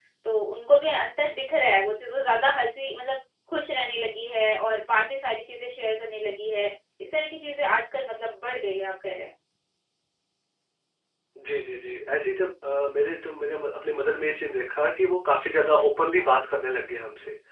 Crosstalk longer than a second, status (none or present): none